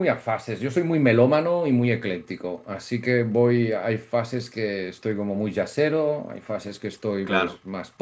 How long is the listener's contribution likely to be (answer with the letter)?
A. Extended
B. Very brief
B